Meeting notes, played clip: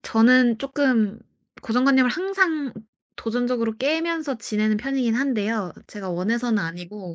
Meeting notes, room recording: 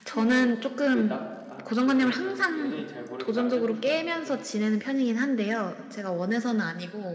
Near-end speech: present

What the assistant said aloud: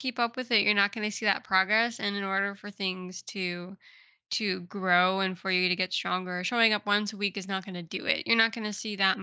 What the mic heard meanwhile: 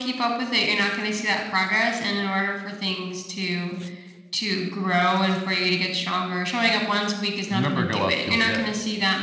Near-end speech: present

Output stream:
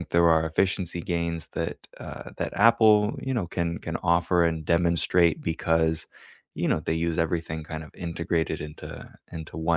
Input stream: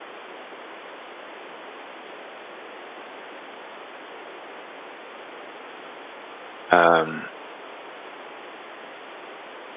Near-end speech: present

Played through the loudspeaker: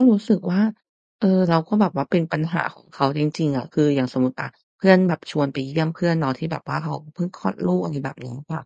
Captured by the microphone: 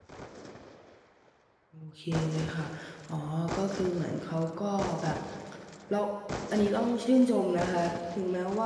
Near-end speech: present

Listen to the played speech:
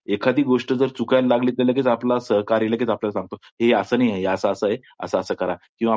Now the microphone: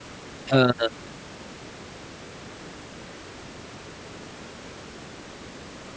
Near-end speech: present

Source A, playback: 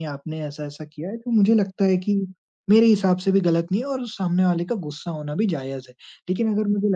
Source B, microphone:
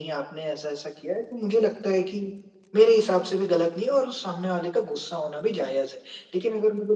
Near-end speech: none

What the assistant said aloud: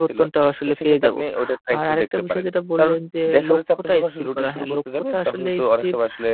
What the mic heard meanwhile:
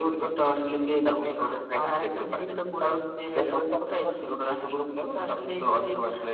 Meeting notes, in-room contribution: none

